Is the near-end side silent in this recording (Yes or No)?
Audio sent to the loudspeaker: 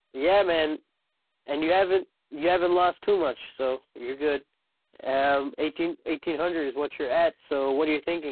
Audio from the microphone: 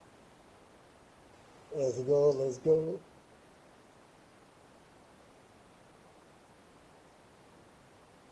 No